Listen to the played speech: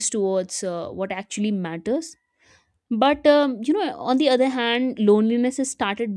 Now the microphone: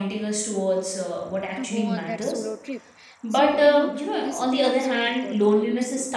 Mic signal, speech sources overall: both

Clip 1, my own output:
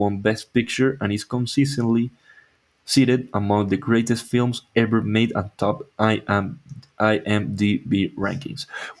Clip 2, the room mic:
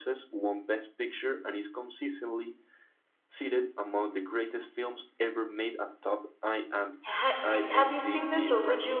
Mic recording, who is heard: both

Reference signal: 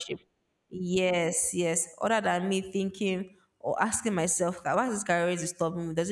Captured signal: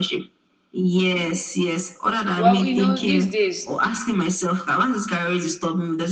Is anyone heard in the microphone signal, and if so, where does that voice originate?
both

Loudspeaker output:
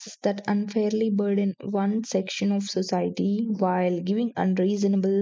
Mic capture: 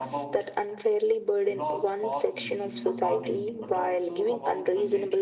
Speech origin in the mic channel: both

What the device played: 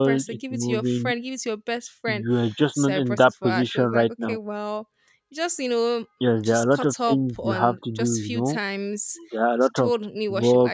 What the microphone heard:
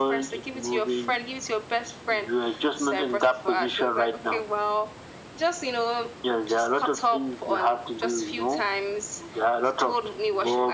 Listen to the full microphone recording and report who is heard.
echo only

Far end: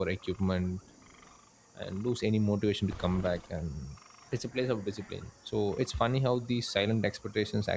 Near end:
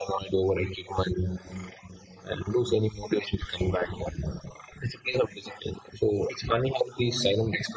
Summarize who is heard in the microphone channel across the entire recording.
echo only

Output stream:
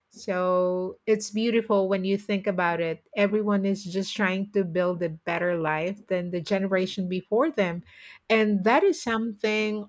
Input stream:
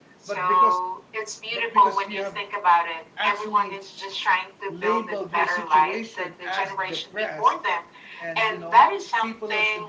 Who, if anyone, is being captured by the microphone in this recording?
both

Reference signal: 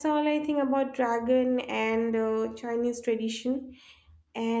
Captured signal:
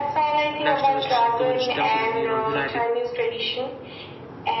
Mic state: both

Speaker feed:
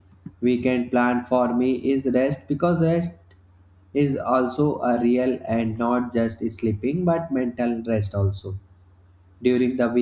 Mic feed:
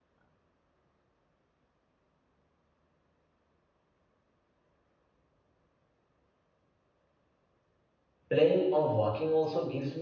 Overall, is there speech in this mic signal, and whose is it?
user only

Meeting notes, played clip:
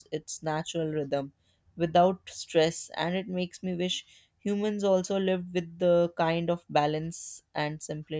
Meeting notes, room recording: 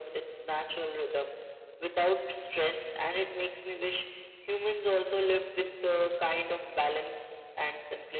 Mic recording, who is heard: echo only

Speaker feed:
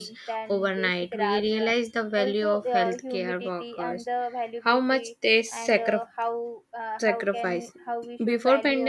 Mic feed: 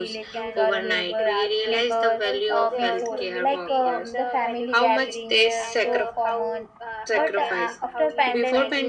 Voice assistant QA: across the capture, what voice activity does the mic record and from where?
both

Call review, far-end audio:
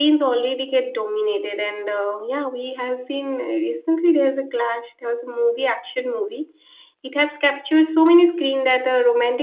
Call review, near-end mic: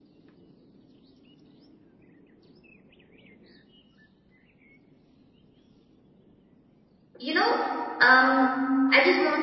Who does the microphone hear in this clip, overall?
user only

